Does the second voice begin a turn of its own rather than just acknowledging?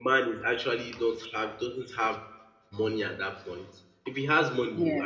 No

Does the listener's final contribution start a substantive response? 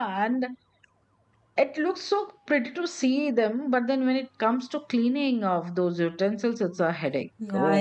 Yes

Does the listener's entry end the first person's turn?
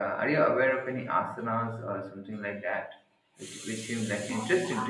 Yes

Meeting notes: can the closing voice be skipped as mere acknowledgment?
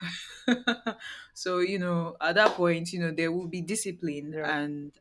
No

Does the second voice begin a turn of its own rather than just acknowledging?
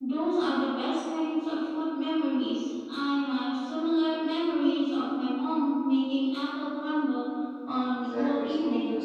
Yes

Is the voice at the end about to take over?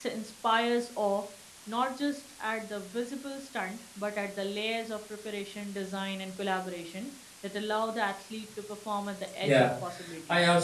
Yes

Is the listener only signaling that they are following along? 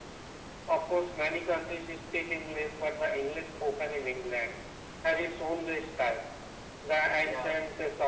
Yes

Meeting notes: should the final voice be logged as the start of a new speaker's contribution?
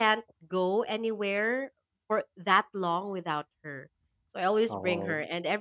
No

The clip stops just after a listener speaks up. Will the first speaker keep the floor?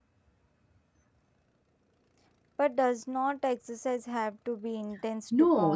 No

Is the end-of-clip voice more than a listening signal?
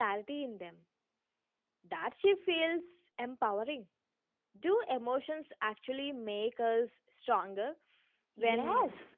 Yes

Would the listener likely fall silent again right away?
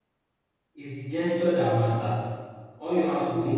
No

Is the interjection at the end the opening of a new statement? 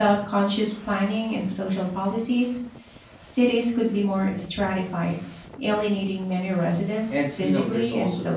Yes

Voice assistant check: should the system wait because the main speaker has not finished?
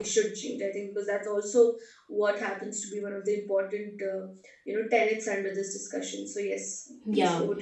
No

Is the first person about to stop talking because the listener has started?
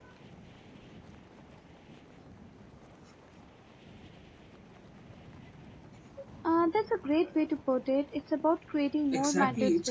Yes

